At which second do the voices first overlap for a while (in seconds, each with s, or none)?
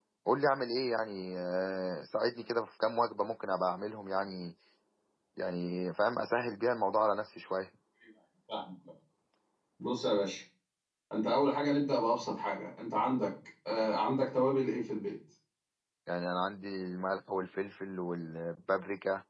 none